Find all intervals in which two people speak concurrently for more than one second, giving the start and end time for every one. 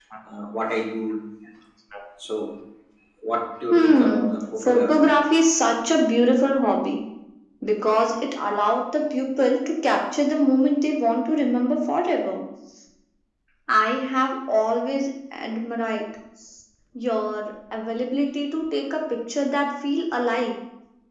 3.7-5.2

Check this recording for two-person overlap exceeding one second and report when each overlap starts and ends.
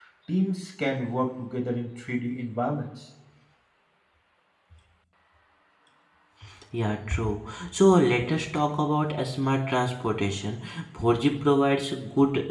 none

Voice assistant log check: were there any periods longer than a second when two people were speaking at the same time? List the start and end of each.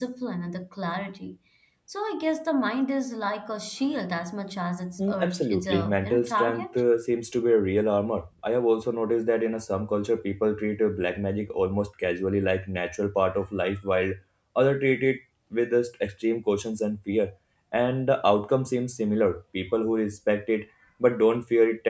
5.0-6.8

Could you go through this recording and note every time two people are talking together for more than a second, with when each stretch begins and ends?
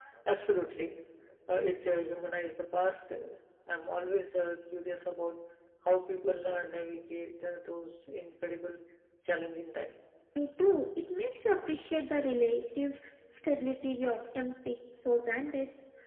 none

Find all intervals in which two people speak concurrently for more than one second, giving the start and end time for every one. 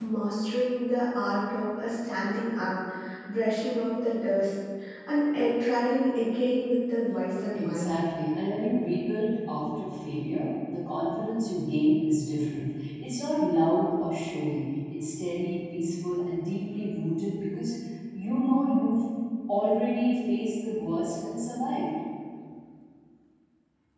none

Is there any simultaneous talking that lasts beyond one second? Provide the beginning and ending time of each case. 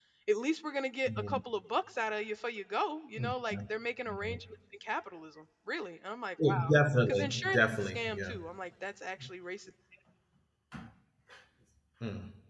7.1-8.4

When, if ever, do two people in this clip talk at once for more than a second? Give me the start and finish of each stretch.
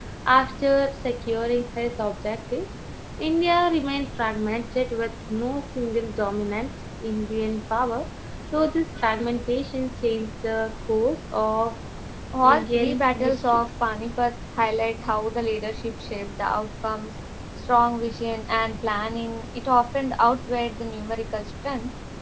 12.4-13.6

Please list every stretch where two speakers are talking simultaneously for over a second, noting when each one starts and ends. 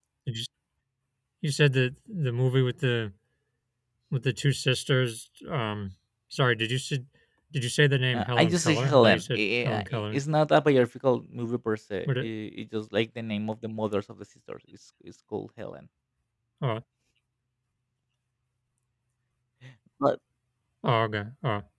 8.1-10.2

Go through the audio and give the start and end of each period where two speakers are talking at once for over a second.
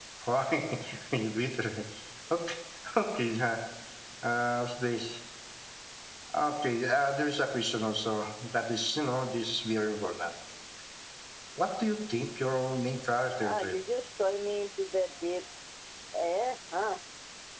none

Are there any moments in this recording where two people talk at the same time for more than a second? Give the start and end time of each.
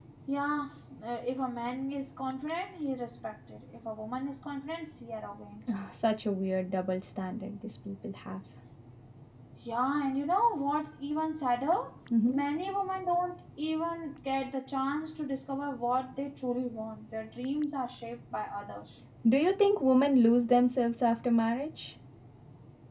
none

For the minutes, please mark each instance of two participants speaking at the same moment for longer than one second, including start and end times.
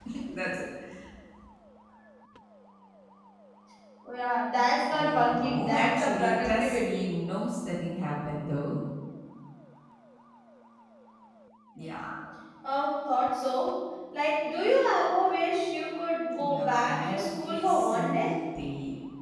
4.9-7.1, 16.4-18.2

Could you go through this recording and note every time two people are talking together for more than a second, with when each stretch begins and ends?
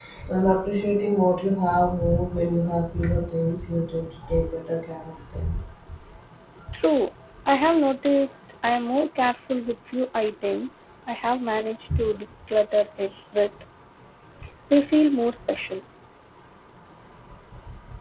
none

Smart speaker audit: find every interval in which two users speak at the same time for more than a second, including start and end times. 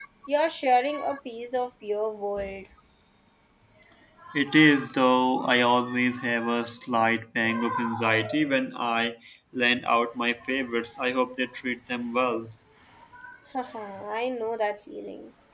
none

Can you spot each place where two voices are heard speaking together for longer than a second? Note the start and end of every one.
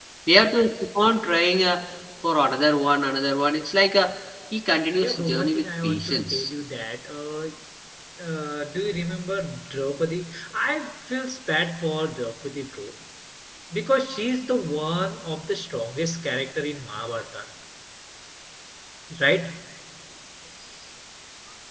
5.0-6.5

